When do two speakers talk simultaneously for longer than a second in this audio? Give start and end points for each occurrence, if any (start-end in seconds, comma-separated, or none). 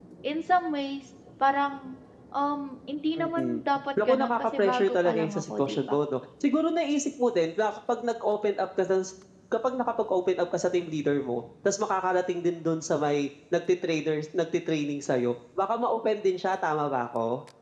4.0-6.0